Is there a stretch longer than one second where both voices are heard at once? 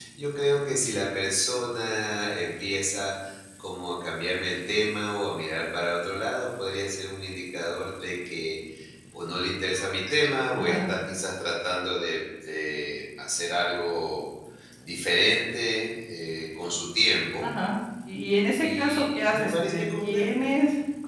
Yes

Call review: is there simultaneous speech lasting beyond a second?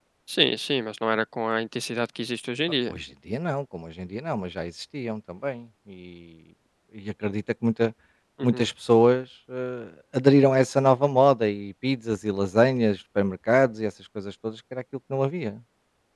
No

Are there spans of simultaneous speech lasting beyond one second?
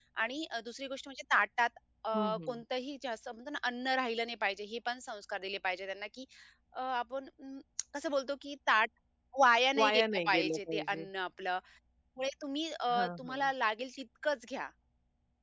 Yes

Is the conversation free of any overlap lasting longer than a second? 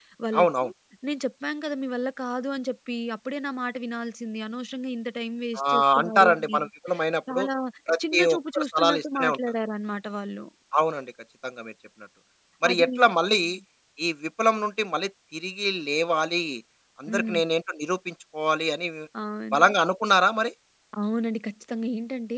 No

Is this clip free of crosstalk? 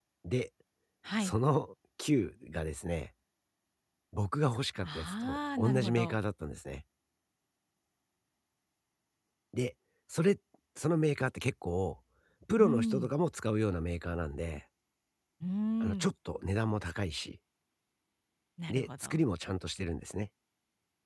No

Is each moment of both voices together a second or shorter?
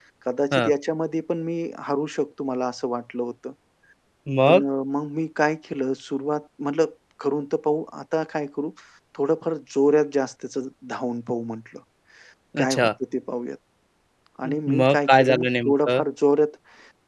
No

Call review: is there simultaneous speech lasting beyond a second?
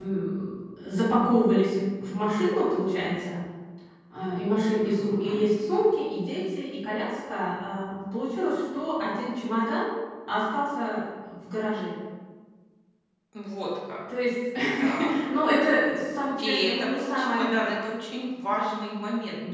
Yes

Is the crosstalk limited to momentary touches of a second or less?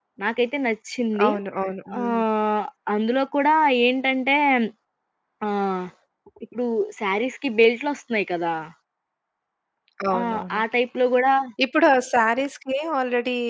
Yes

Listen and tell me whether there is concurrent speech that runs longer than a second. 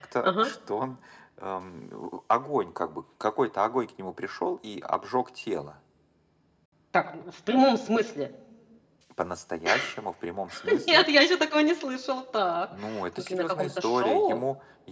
Yes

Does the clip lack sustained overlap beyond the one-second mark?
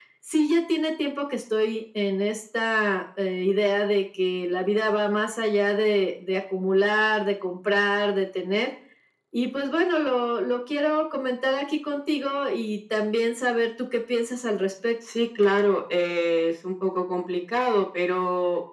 Yes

